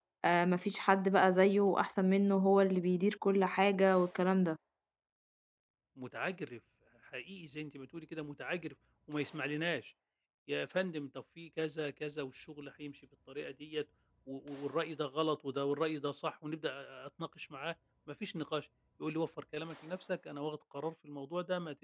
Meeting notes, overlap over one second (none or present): none